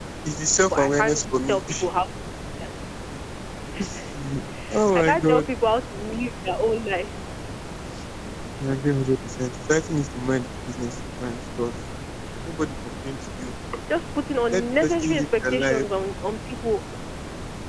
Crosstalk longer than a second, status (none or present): present